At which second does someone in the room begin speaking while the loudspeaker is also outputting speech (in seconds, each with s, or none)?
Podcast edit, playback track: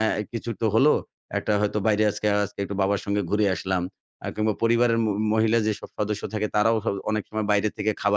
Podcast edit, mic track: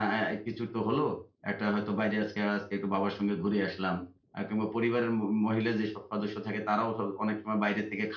none